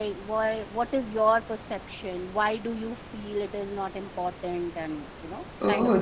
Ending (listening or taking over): taking over